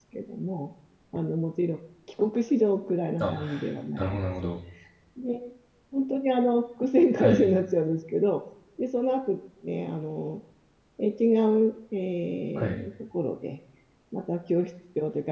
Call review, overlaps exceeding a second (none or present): none